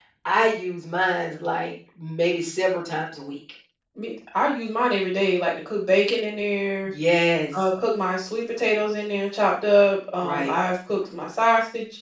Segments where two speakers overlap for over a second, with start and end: none

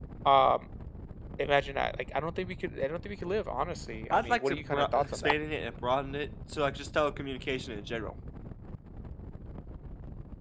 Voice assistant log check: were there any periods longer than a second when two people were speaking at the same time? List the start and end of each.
4.1-5.3

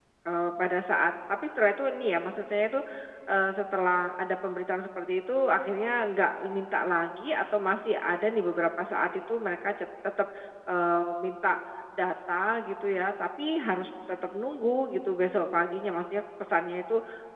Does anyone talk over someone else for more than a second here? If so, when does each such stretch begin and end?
none

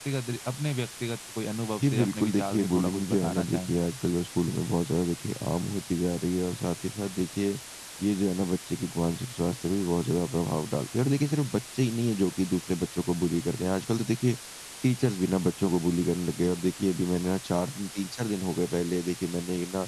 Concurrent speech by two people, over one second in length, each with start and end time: 1.8-3.7

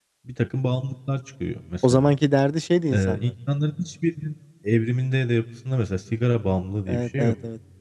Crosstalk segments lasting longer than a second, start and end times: none

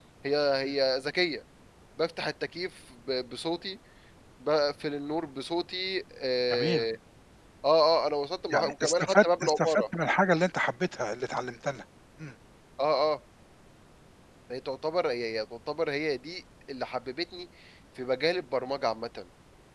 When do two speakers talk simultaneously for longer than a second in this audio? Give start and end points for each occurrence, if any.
8.5-9.8

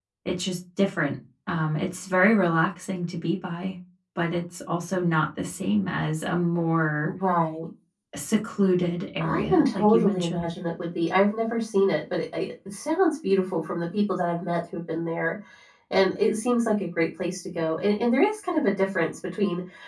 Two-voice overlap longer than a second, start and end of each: 9.2-10.5

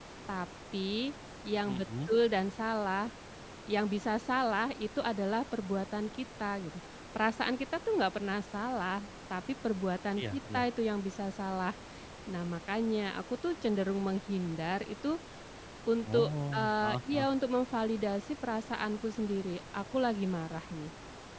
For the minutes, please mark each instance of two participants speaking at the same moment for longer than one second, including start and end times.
16.1-17.3

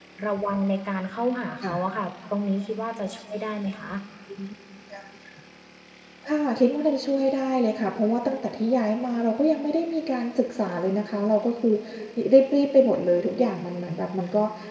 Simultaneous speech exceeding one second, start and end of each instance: none

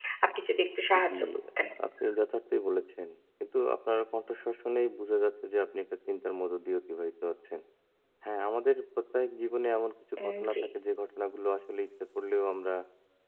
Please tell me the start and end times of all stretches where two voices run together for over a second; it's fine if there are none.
none

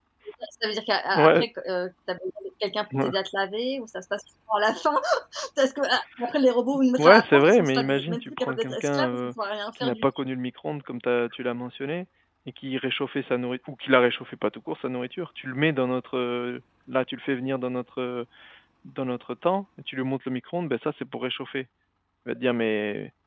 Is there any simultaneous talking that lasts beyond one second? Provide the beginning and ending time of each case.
7.0-9.2

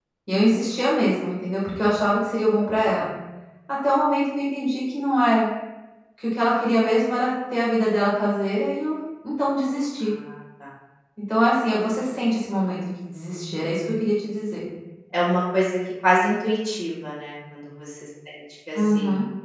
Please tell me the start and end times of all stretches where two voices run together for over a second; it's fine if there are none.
none

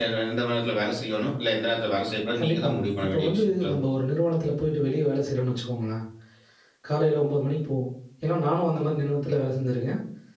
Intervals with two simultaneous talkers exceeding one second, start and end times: 2.4-4.0

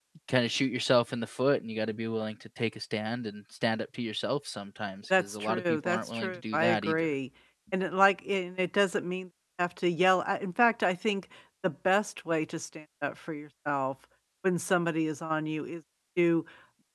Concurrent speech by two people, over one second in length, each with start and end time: 5.1-7.1

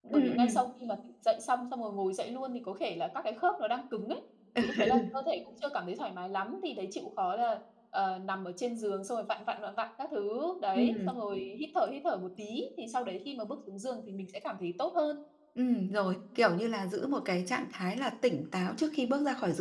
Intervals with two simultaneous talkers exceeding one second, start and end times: none

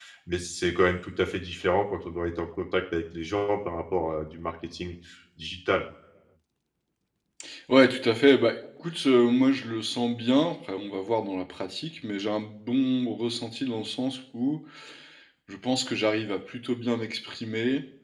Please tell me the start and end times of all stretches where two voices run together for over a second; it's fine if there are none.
none

